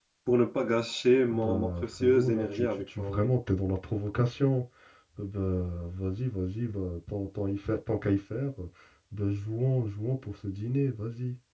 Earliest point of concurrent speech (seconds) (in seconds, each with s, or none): 1.3 s